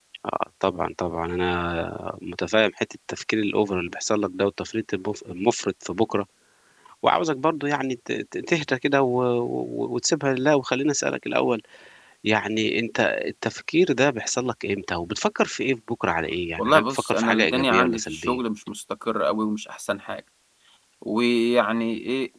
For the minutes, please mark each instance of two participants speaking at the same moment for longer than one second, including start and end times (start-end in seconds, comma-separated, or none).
16.6-18.4